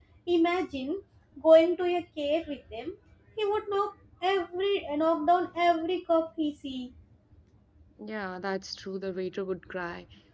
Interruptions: none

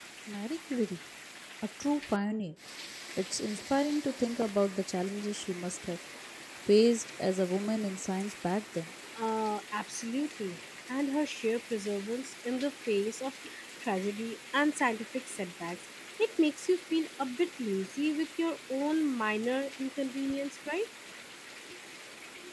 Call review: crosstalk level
none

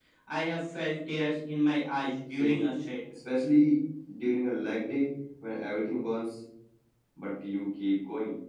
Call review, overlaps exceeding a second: none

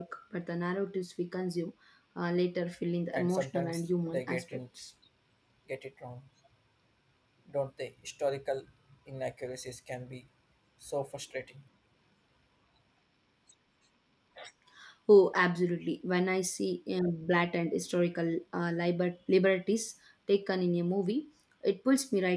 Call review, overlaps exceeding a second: present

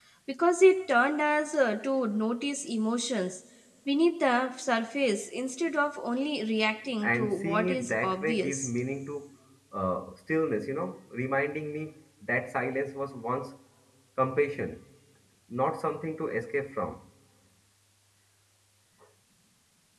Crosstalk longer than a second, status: present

